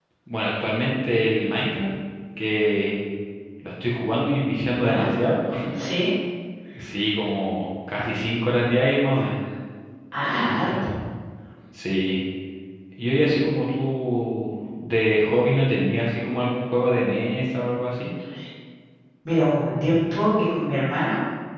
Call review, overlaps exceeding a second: none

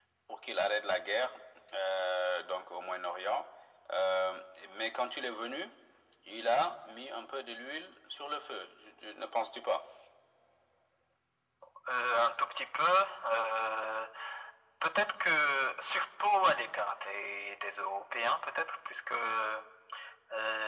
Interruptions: none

